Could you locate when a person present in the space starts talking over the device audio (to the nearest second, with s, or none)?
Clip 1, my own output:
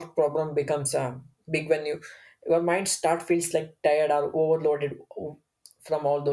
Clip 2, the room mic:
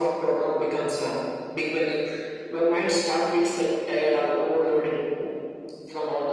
none